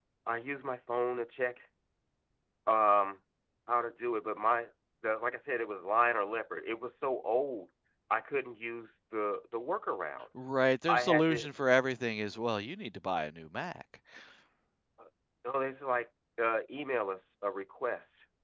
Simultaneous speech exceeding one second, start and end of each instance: none

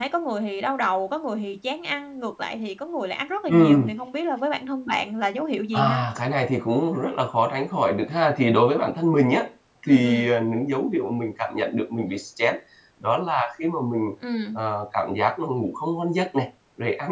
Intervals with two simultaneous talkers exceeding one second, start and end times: none

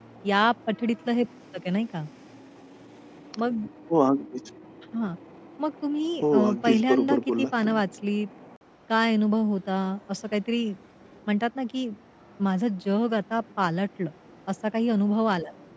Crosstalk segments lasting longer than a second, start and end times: 6.2-7.8

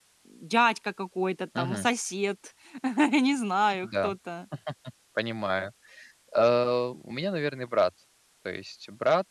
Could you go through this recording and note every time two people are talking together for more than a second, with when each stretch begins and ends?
none

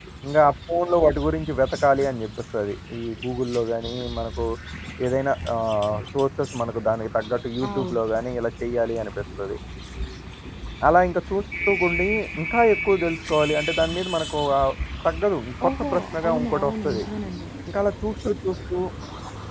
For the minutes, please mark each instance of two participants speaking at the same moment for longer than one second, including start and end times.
15.6-17.0

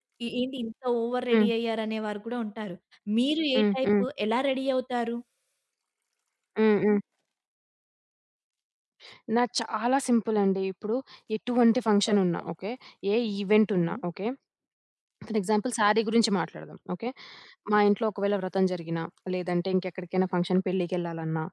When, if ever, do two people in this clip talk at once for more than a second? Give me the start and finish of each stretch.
none

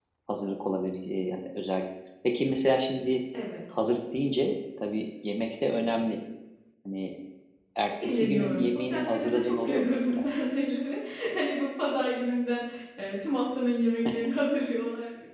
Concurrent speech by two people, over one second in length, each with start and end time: 8.0-10.3

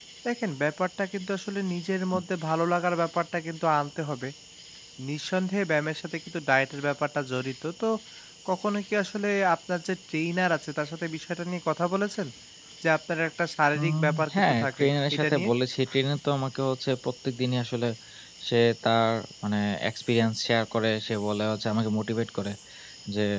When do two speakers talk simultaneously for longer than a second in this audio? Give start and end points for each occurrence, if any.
13.8-15.5

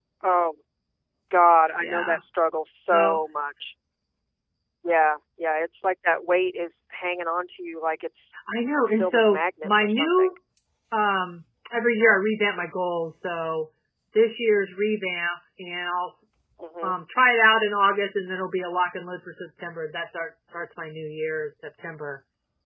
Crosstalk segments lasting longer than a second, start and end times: 9.0-10.3

